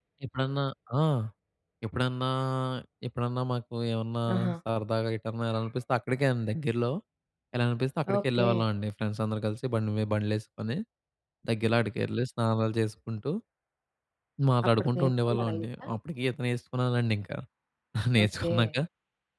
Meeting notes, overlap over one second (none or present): present